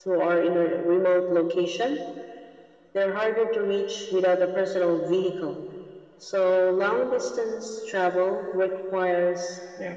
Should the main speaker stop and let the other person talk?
No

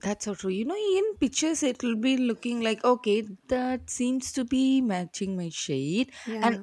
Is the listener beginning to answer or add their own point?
No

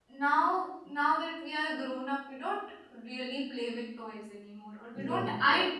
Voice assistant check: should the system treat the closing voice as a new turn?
No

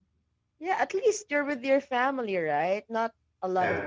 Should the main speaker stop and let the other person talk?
No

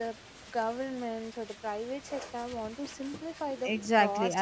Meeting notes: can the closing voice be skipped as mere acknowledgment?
No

